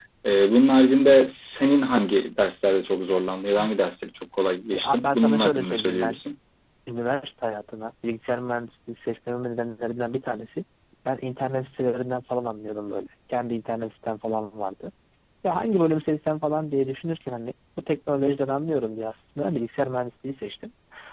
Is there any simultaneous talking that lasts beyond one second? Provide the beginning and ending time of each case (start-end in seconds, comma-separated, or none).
4.7-6.2